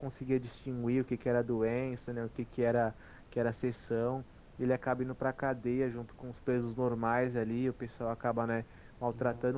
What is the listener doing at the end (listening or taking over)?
listening